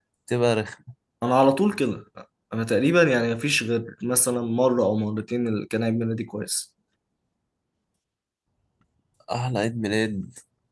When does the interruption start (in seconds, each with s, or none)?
none